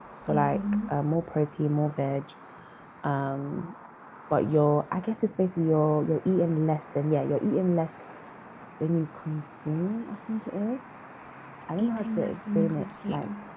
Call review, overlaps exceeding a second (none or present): present